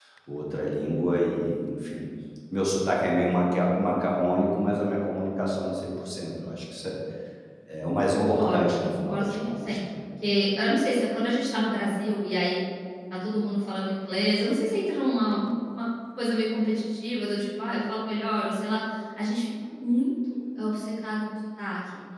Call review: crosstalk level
present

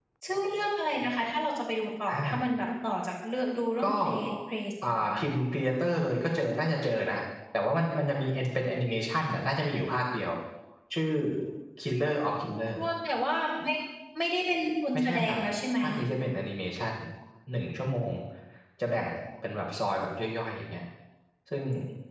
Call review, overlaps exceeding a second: none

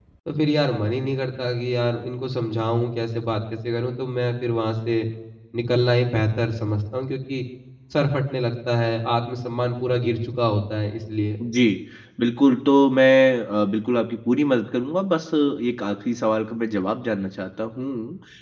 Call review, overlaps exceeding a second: none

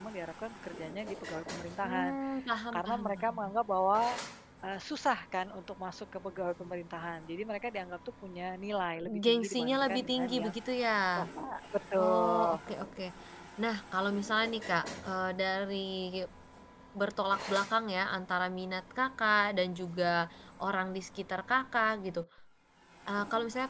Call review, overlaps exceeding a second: present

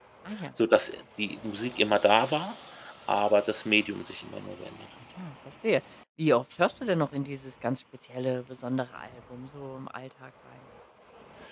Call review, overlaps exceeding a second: none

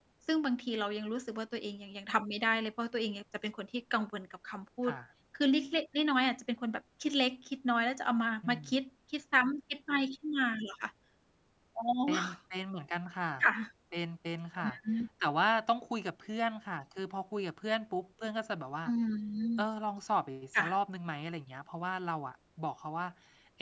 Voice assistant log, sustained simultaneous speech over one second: none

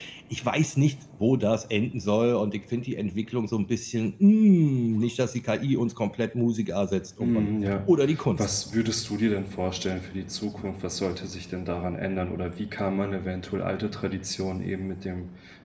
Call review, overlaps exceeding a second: none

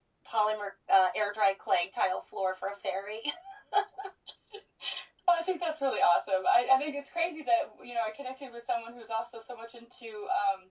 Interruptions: none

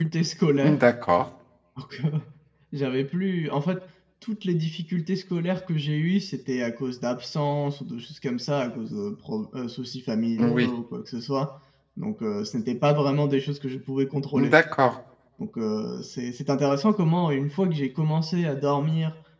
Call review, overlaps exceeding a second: none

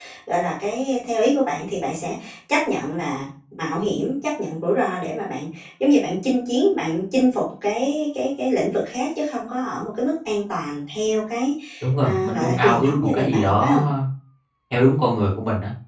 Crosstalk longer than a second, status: present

